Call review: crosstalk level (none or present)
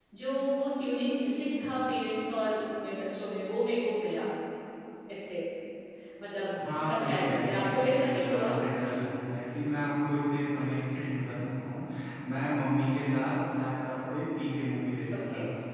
present